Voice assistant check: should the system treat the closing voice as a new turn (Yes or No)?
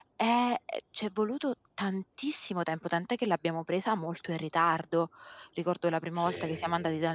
No